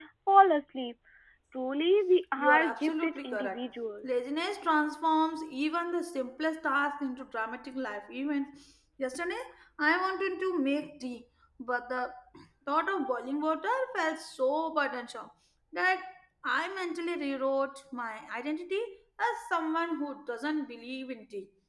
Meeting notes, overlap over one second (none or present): present